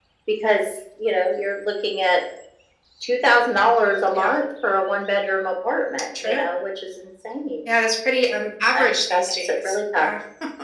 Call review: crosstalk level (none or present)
present